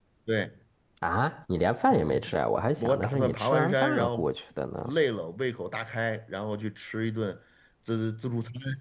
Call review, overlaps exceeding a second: present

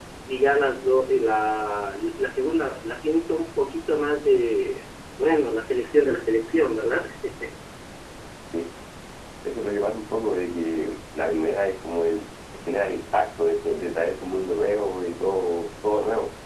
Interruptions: none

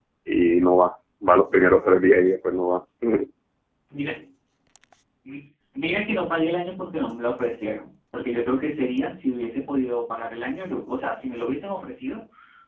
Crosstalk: none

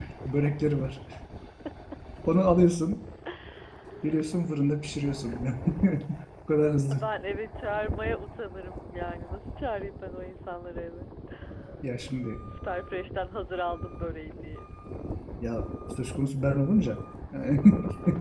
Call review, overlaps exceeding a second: none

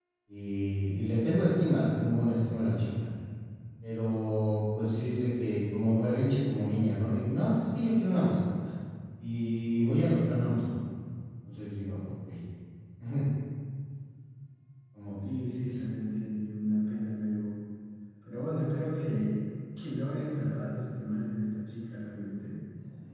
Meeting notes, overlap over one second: none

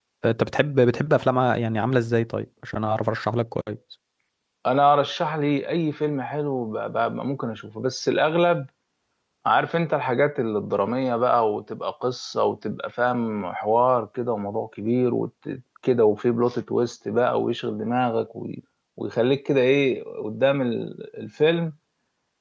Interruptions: none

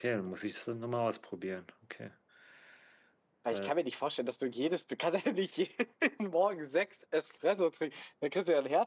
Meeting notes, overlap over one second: none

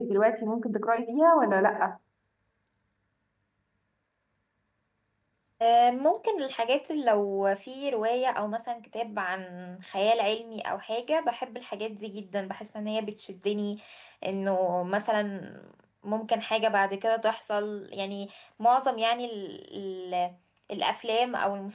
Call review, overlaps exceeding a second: none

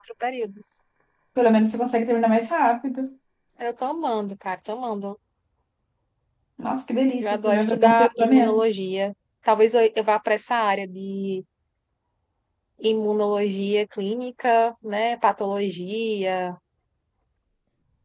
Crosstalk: present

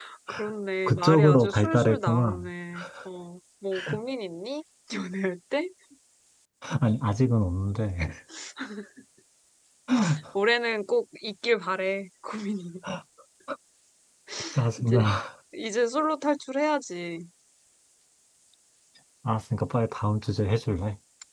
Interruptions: present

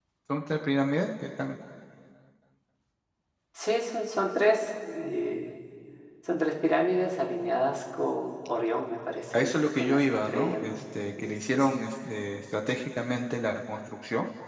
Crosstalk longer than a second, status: present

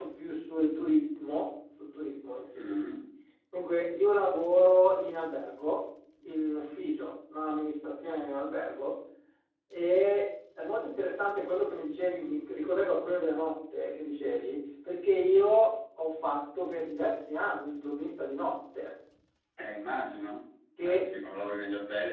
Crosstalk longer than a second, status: none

